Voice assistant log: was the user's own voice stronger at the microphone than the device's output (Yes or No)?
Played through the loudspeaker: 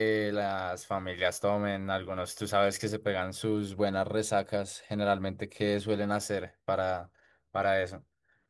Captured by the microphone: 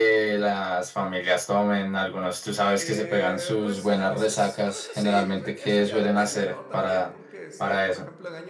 No